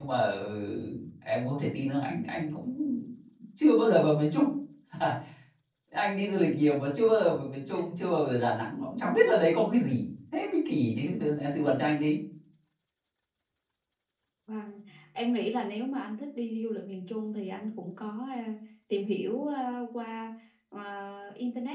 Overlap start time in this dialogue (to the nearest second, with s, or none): none